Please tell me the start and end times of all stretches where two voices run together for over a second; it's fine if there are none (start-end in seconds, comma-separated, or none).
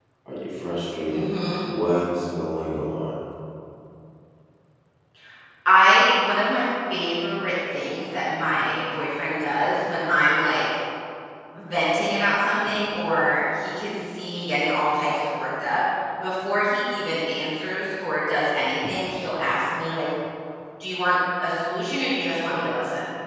none